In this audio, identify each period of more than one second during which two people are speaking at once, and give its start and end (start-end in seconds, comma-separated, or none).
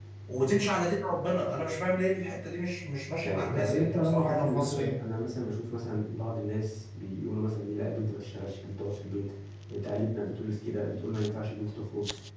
3.2-4.9